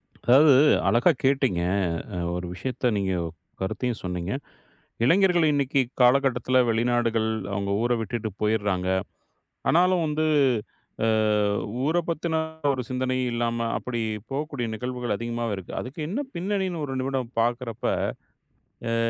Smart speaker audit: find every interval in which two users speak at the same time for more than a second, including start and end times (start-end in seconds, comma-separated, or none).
none